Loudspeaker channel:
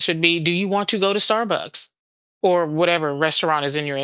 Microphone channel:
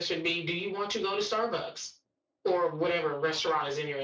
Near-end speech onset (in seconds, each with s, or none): none